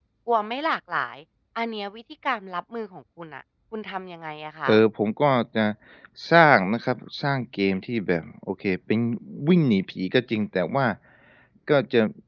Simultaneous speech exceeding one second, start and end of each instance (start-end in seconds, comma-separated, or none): none